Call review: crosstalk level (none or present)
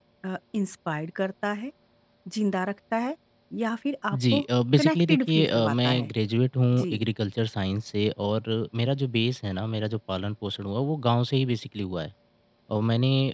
present